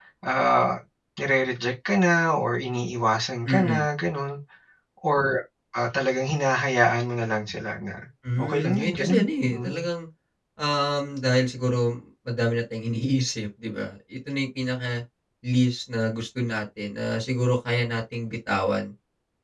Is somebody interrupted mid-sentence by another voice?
Yes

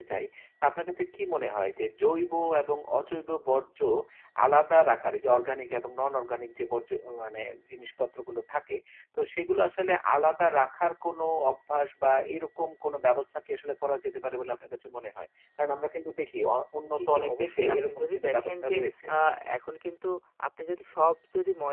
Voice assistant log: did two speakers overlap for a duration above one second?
Yes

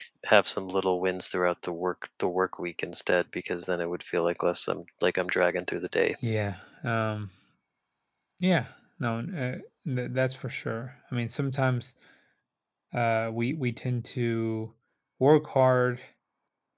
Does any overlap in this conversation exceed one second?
No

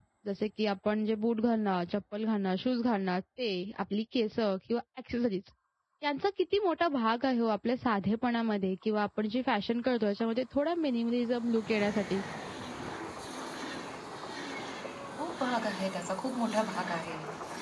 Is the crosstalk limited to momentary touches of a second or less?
Yes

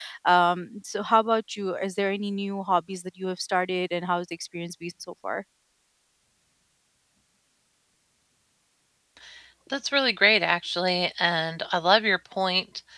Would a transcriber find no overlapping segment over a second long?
Yes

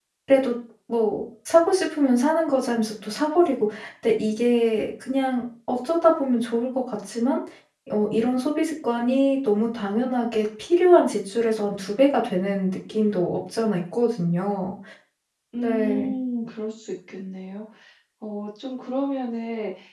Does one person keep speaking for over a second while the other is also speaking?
No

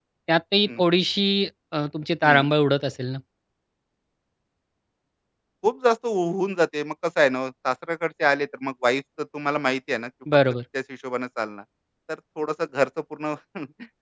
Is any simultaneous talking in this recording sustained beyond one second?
No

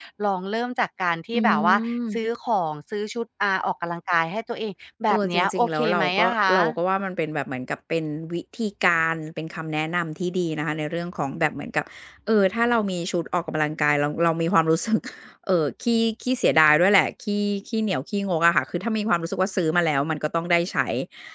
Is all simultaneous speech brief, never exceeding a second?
No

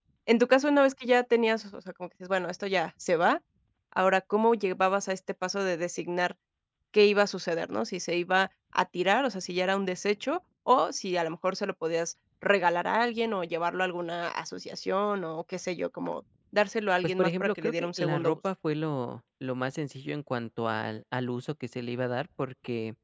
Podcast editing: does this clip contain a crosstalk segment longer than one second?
Yes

